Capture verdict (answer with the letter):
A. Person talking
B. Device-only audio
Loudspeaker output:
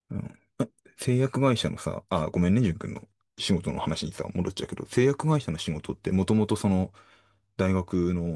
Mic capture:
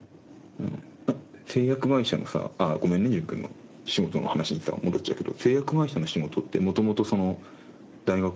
B